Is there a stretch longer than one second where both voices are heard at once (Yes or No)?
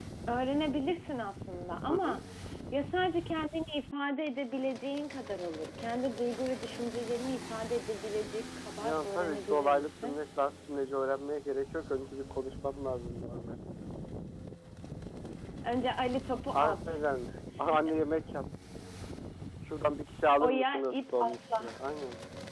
Yes